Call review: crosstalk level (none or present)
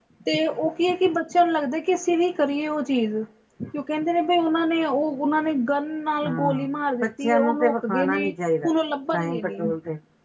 present